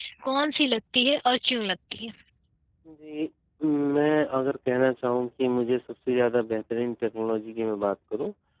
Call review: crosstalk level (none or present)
none